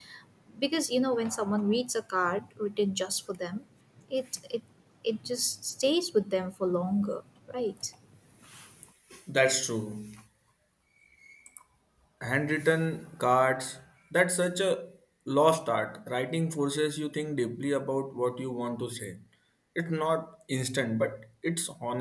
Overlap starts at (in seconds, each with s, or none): none